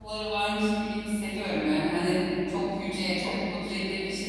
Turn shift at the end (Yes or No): No